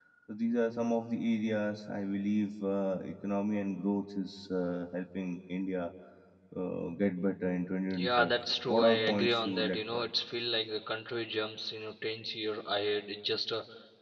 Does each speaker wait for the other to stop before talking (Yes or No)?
No